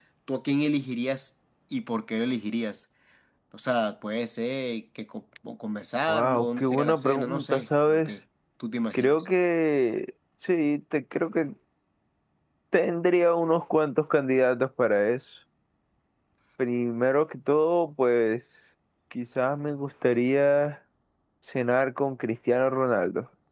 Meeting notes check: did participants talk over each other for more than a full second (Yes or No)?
Yes